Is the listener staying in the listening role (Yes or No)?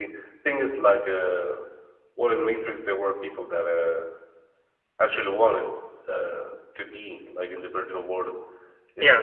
No